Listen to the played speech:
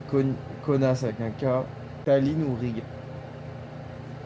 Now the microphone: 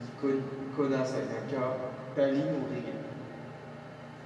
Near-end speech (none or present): none